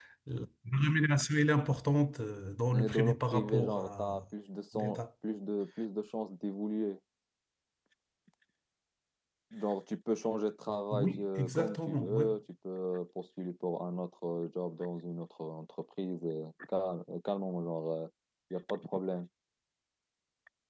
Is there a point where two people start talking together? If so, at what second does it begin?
2.7 s

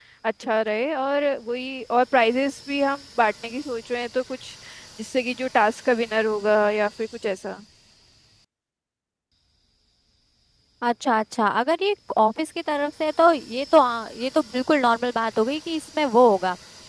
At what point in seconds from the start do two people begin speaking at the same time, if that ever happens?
none

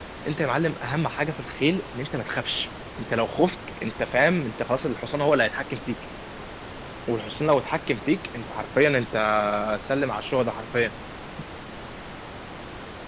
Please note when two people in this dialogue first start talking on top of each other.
none

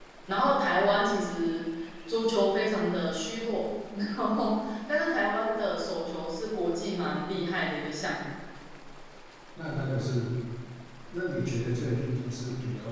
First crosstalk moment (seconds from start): none

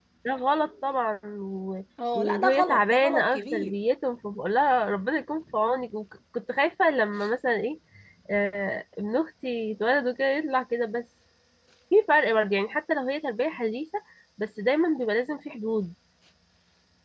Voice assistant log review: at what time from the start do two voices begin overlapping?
2.0 s

